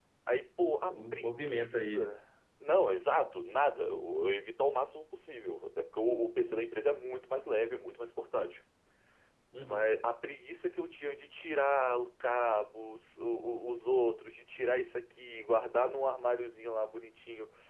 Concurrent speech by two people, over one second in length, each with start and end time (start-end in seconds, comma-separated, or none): 0.9-2.2